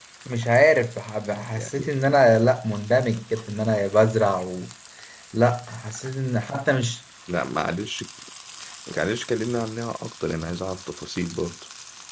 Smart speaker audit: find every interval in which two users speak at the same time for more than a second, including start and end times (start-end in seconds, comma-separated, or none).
none